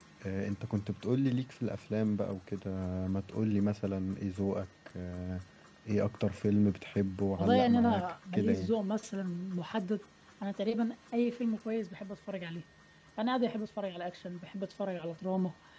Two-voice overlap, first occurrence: 7.4 s

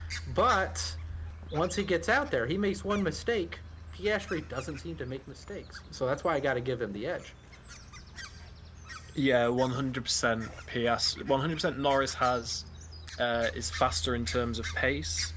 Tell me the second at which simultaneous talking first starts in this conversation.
none

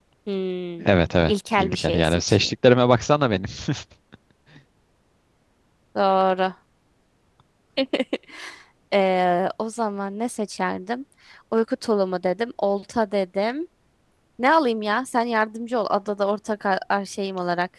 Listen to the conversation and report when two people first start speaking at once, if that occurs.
0.8 s

